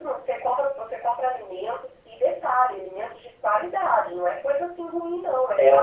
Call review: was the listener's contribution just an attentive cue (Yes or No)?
No